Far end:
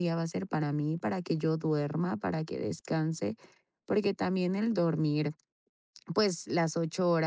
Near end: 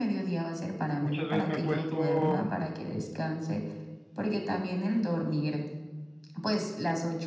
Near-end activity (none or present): present